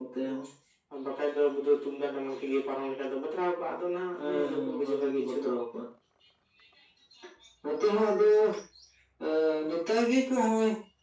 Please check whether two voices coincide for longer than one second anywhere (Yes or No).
Yes